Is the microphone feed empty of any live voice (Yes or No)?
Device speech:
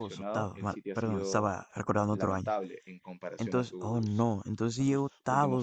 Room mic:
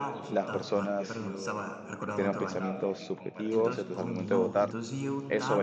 No